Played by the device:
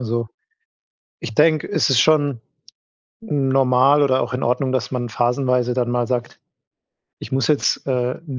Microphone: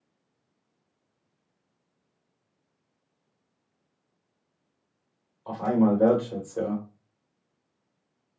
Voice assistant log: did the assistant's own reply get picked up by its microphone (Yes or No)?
No